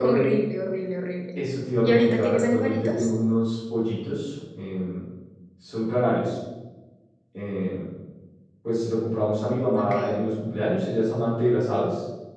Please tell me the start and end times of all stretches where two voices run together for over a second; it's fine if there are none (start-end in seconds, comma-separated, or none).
1.8-3.1